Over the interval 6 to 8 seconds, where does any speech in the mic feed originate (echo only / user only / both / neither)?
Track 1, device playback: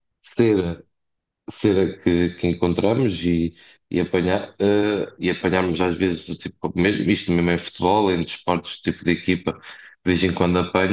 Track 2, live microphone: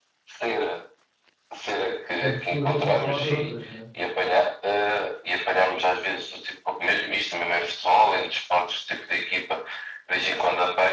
echo only